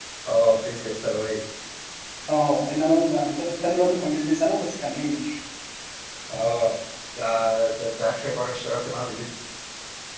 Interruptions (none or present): none